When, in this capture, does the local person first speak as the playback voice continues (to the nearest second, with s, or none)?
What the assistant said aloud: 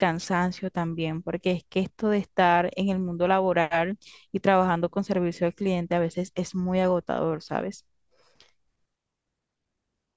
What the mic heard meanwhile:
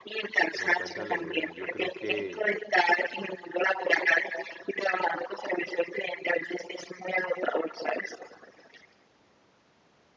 1 s